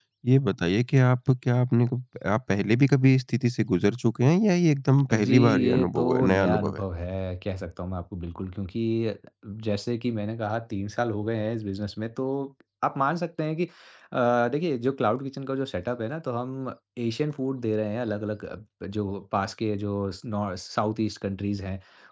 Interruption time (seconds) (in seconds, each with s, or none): 5.1 s